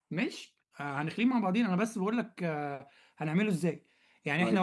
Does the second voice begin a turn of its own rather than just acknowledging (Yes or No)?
No